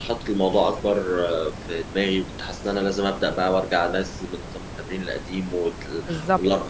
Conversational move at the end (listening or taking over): listening